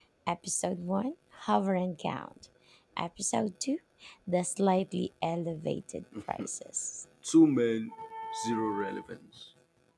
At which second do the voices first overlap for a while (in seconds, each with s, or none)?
none